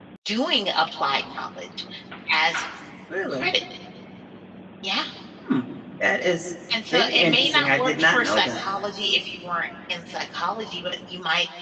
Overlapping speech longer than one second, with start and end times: 6.9-8.6

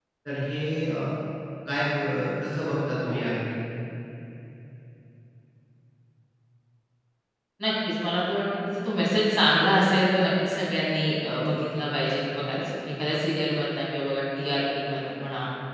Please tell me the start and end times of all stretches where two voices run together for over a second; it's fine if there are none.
none

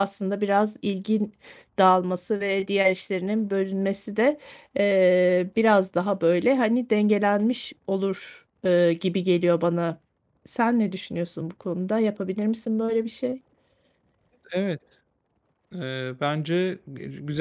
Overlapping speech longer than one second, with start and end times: none

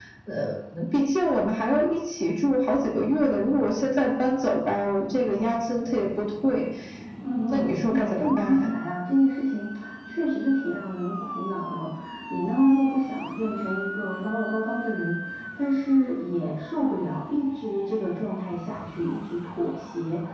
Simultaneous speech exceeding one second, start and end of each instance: 7.5-8.7

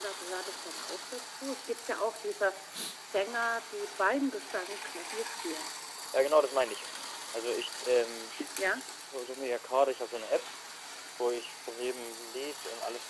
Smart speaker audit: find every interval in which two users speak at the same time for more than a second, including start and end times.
none

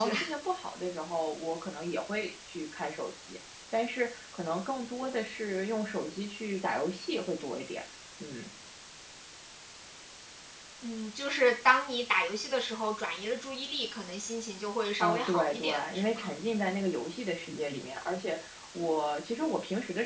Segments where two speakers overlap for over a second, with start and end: 15.0-16.3

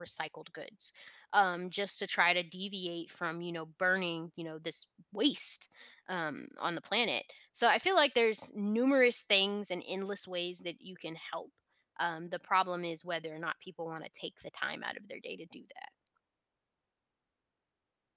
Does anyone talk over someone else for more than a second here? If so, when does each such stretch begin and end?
none

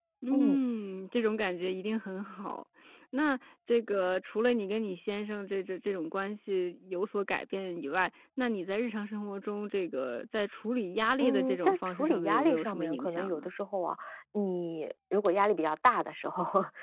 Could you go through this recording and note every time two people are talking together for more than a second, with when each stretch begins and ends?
11.2-13.5

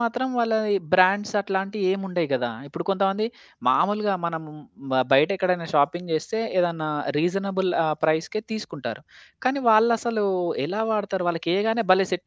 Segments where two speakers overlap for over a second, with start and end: none

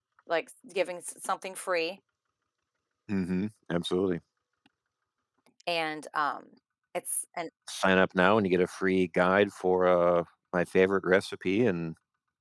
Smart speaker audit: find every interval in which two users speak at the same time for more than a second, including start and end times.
none

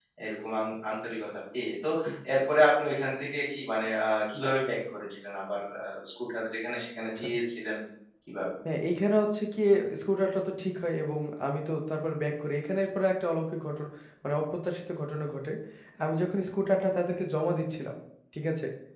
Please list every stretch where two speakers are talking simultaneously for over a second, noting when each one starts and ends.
none

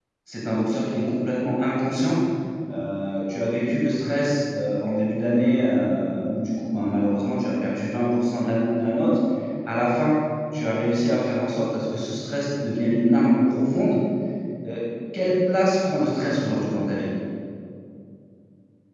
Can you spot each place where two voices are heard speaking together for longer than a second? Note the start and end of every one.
none

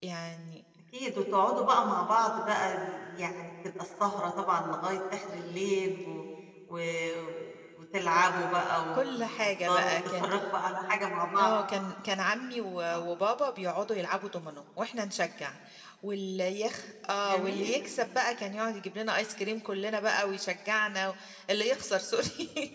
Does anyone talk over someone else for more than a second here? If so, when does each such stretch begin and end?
8.9-10.3

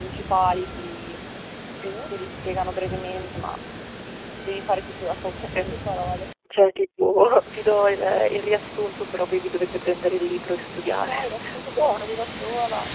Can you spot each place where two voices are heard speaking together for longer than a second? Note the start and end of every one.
10.8-12.1

